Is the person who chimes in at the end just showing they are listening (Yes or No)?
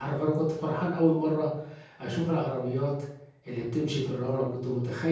Yes